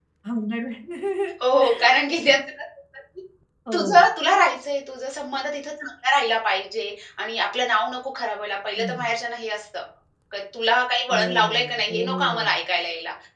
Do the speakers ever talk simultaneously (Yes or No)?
Yes